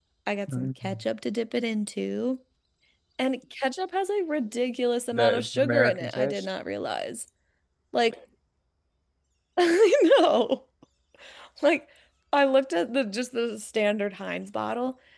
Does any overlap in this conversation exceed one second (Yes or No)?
Yes